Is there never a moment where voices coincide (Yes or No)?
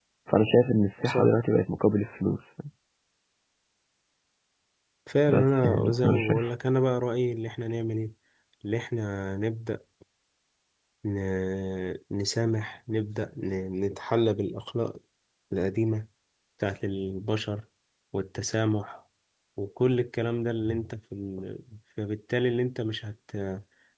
No